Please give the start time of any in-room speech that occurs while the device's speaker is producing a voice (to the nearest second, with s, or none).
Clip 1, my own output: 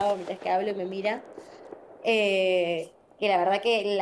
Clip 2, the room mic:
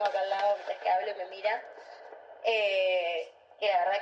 none